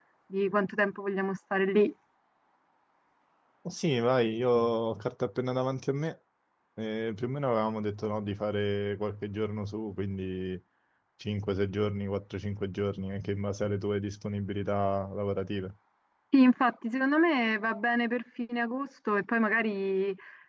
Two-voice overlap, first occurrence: none

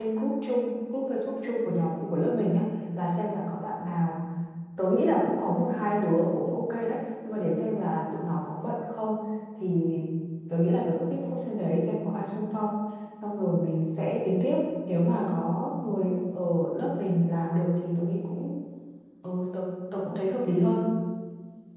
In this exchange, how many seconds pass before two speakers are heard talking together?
none

